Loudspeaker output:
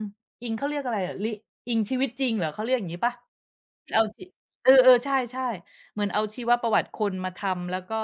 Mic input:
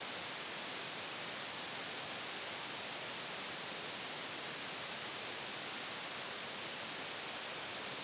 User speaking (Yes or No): No